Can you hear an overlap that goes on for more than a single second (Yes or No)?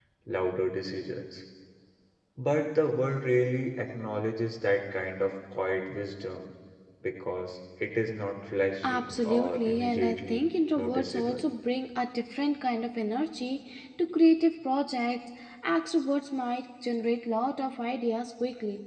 Yes